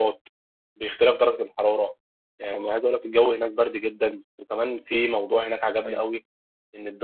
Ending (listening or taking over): listening